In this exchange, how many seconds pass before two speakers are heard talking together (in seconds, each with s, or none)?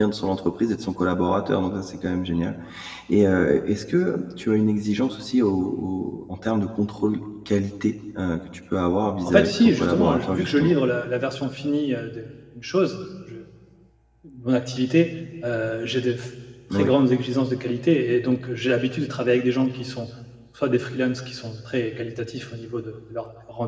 9.2 s